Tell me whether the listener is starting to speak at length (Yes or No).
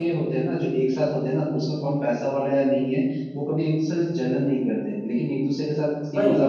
No